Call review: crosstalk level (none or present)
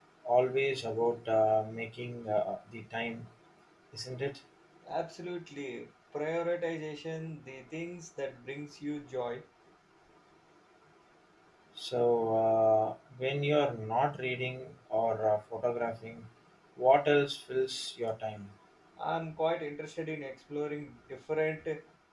none